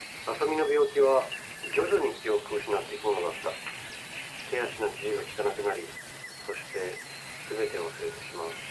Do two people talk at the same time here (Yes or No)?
No